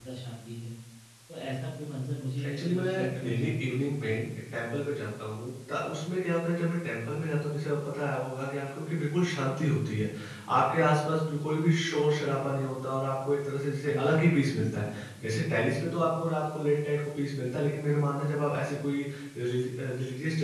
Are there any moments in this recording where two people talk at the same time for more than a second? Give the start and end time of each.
2.5-4.2

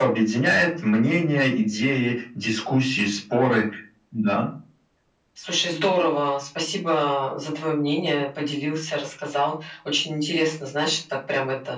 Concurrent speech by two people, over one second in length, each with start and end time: none

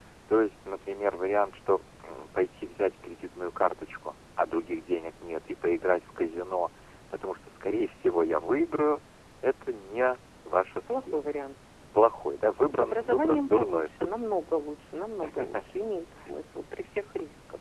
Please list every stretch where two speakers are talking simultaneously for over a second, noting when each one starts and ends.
12.7-14.2

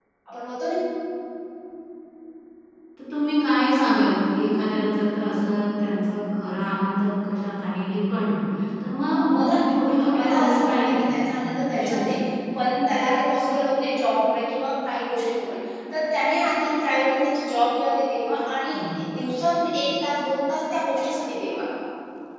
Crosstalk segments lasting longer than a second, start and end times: 9.9-12.2

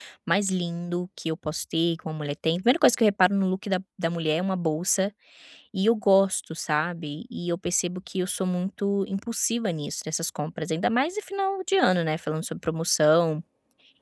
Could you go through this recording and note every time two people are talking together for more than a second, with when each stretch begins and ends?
none

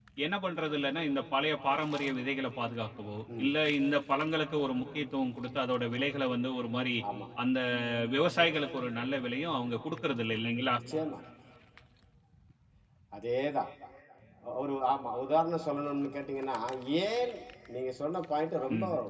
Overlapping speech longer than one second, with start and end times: none

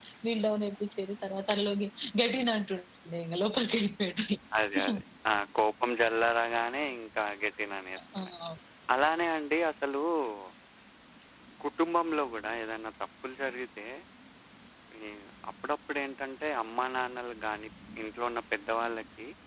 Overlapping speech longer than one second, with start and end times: none

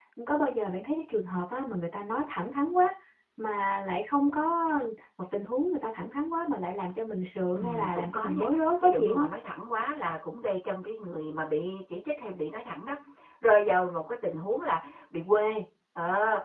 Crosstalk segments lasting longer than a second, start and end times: 7.6-9.3

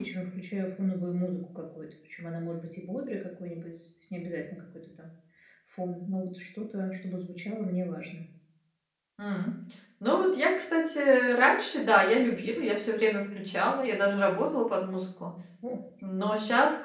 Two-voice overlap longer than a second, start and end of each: none

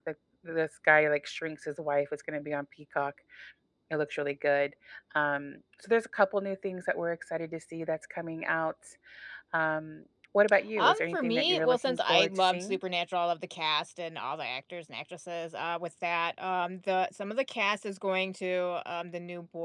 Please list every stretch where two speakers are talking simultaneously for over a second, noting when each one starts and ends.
10.8-12.8

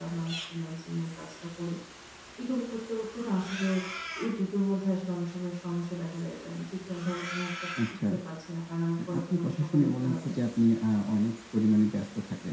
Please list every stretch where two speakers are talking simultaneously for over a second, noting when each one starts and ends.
9.1-10.3

